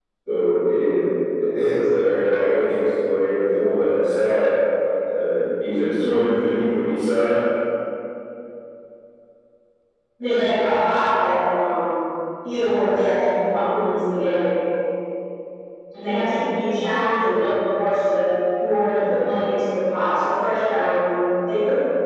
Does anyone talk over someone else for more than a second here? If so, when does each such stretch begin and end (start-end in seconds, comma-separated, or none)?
none